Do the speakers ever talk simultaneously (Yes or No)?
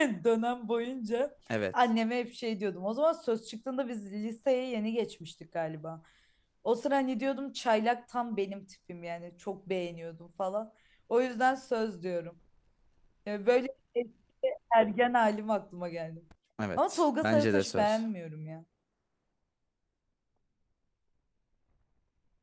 Yes